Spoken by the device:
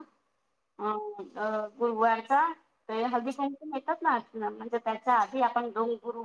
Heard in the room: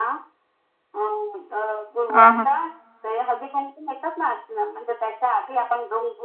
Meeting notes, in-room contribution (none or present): present